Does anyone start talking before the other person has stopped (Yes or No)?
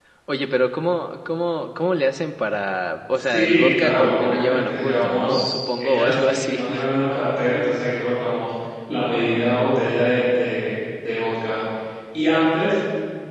Yes